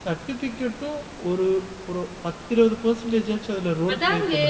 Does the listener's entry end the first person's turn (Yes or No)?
Yes